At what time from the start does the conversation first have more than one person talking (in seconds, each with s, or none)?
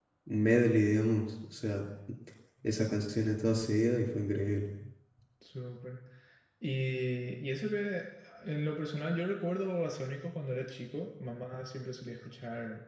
none